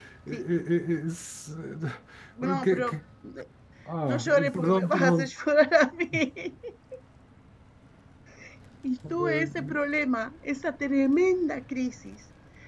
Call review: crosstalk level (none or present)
present